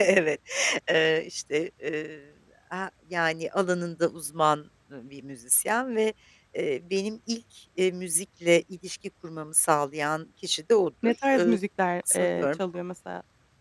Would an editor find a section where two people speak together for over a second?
No

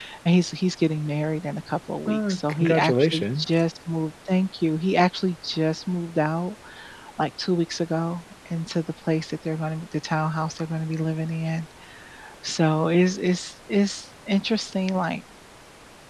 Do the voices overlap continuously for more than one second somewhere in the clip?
Yes, from 2.1 s

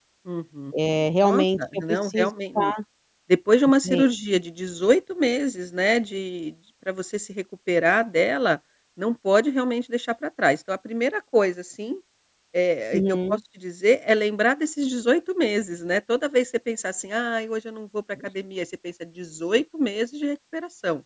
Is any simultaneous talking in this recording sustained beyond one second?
Yes, from 1.2 s

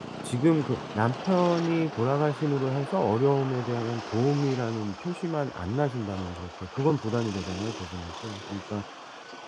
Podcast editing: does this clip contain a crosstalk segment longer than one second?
No

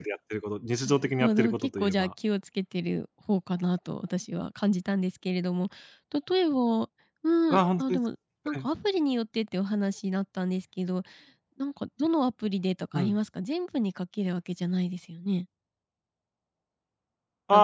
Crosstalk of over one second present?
Yes, from 0.8 s

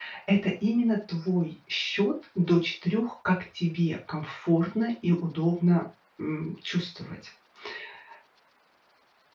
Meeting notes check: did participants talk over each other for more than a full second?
No

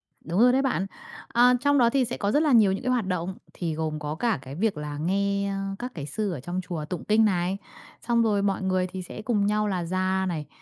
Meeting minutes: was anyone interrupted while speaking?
No

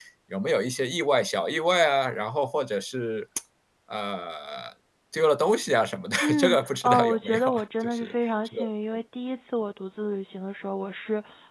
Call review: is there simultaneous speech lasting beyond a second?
Yes, from 6.2 s

